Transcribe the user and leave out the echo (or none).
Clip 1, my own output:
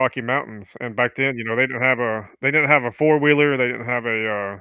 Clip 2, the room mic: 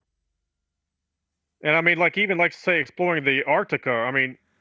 And, I mean, like, even, like, say, exploring the Arctica. I mean